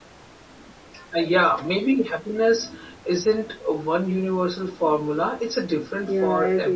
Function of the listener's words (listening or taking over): taking over